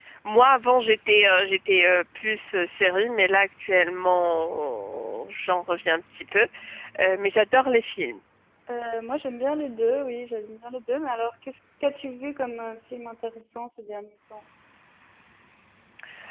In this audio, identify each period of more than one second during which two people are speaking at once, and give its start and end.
none

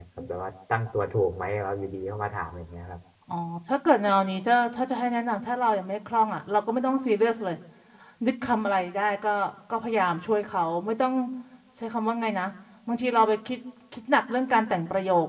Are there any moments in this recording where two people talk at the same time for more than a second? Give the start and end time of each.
none

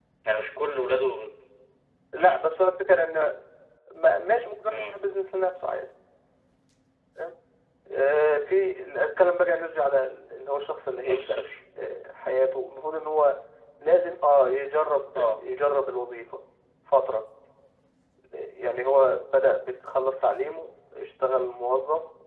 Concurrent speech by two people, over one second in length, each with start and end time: none

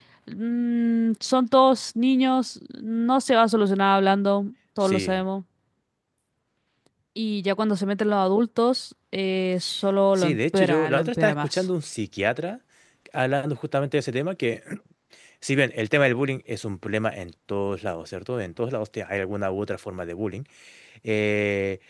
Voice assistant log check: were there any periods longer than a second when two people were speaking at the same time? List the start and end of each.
10.2-11.6

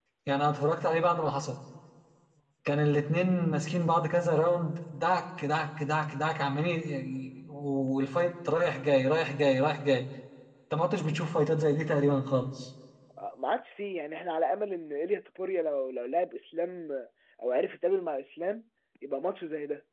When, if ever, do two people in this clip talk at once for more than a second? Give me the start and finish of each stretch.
none

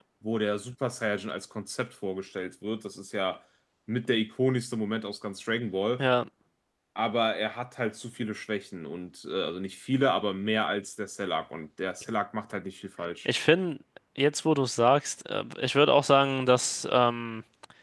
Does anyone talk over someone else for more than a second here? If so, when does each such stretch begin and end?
none

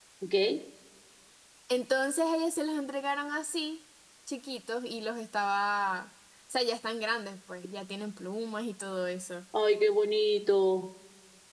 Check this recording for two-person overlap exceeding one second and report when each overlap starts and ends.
none

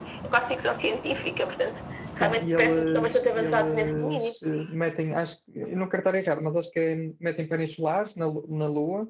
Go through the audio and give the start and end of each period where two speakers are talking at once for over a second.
2.2-4.3

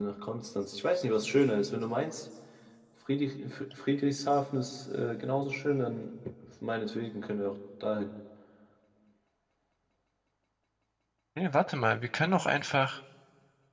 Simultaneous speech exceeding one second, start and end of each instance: none

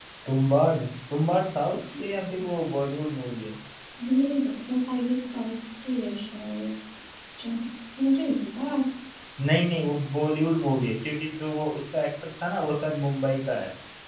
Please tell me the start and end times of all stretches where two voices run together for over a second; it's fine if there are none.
none

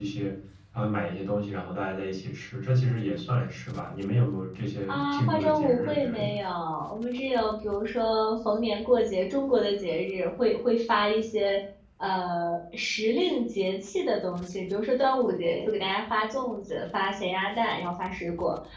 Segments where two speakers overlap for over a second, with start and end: 4.9-6.3

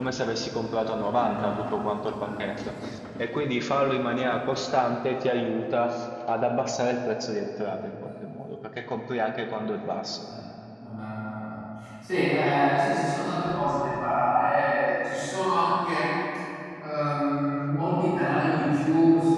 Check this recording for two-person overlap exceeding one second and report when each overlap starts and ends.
none

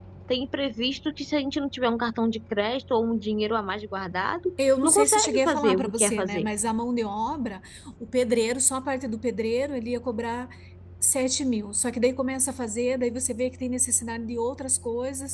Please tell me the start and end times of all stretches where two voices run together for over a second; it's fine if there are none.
4.8-6.5

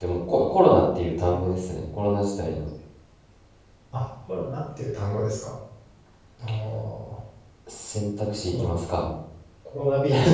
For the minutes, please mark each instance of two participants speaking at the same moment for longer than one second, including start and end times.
none

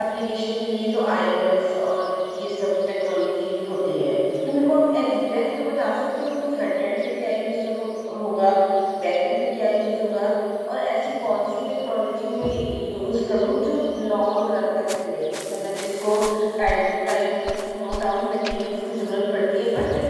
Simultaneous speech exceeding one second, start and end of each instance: none

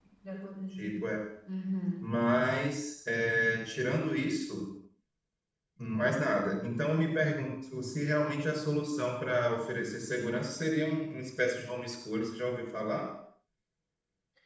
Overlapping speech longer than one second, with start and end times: none

